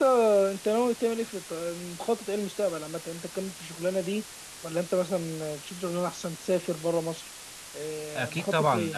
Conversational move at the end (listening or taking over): taking over